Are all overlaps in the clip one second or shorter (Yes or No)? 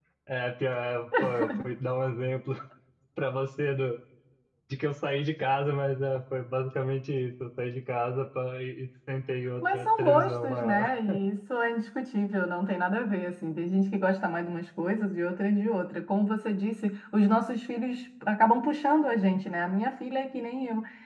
No